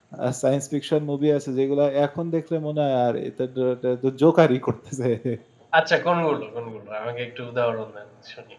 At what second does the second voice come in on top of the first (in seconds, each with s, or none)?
none